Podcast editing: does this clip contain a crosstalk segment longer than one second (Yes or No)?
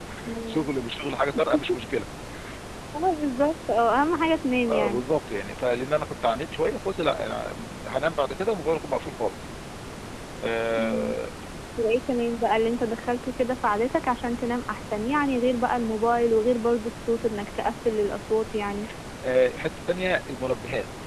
No